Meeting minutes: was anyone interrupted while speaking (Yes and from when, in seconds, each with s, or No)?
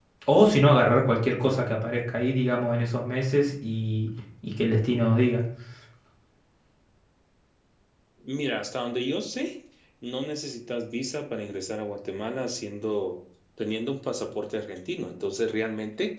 No